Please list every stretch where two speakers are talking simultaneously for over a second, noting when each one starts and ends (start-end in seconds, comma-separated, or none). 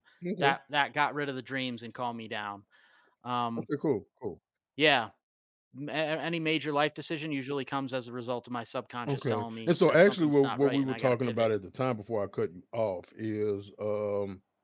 9.1-11.5